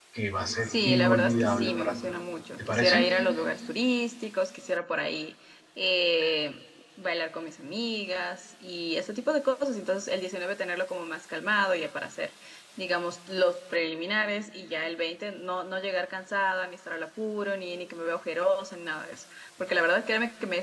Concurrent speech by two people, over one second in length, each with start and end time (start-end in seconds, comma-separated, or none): 0.6-1.9